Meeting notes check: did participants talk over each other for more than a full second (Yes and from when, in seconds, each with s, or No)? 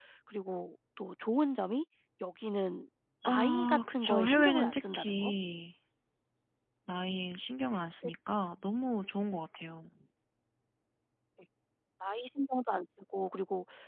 Yes, from 3.2 s